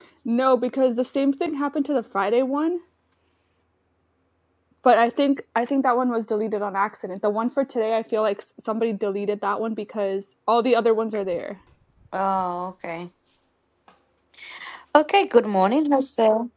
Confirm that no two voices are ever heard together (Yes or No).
Yes